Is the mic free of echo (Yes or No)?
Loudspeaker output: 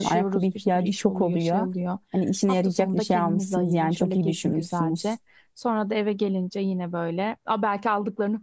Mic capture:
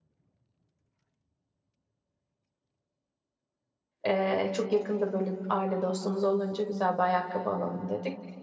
Yes